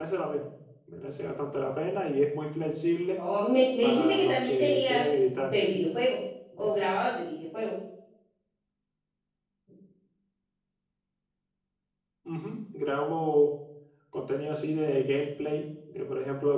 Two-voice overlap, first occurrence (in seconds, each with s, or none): 3.8 s